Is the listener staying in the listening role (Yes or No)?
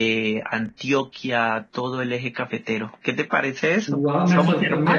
No